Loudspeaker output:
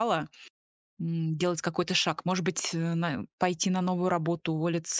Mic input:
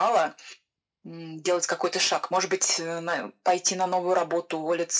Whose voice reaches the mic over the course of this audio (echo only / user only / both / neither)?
echo only